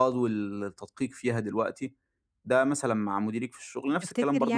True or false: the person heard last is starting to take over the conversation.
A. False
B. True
B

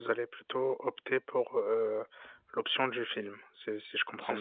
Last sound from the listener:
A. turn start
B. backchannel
A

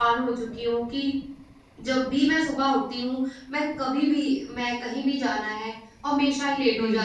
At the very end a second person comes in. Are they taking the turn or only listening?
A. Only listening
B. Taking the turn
A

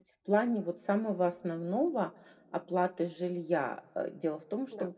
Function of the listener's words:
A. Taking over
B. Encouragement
B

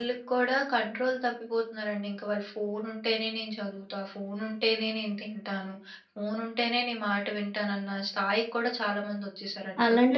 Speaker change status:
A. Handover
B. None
A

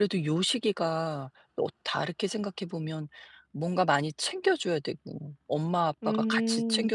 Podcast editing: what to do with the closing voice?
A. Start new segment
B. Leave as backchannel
B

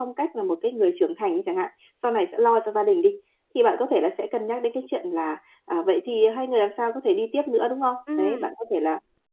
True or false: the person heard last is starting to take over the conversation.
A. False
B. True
A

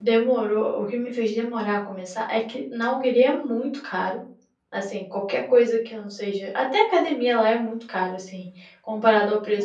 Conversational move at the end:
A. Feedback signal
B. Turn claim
B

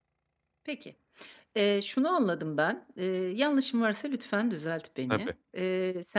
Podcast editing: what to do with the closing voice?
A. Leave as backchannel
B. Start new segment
A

